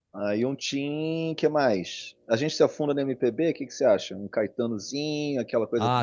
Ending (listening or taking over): taking over